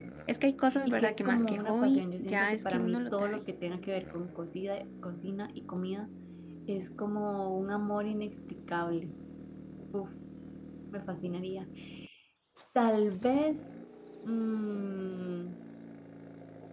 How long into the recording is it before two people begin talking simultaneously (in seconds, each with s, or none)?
0.9 s